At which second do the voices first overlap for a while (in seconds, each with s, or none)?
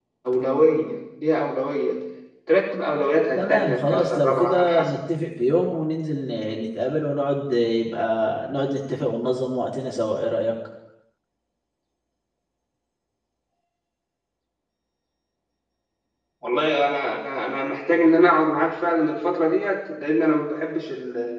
3.4 s